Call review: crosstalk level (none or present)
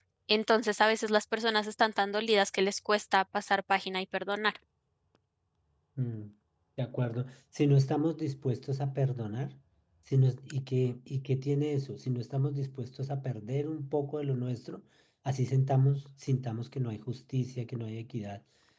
none